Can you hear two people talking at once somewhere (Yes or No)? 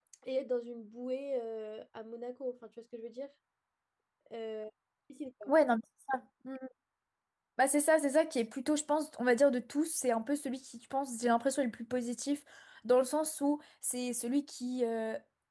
No